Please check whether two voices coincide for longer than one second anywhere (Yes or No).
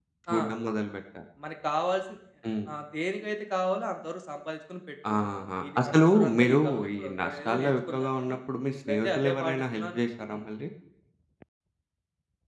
Yes